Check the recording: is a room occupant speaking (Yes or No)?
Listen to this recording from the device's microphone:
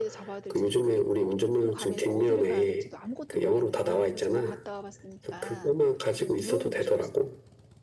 Yes